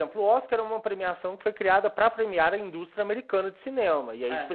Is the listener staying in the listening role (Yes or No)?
Yes